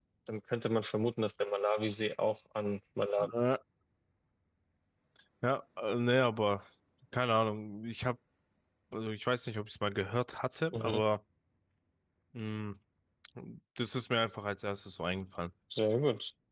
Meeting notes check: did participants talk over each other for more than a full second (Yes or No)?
No